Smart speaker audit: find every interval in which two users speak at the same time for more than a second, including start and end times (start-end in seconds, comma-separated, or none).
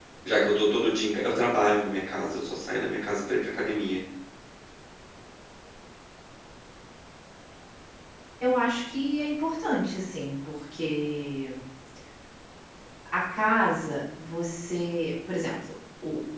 none